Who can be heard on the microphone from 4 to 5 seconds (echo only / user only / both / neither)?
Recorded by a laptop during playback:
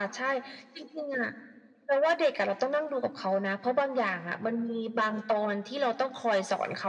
echo only